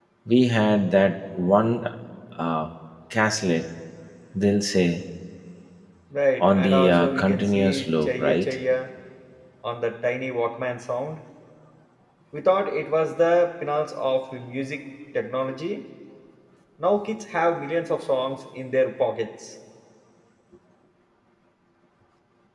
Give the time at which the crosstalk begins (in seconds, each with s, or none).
6.4 s